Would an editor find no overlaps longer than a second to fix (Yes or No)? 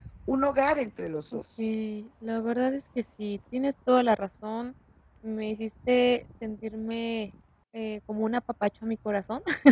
Yes